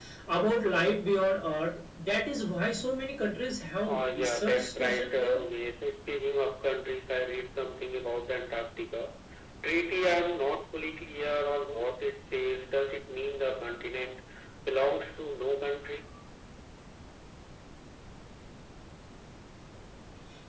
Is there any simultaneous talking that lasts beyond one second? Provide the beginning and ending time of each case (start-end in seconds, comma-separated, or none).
3.9-5.4